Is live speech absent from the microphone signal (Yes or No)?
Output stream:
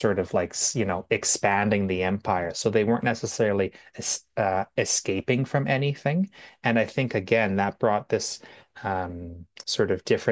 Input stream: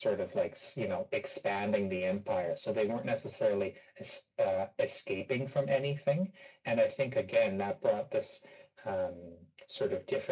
Yes